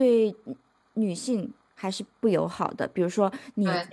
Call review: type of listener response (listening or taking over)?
listening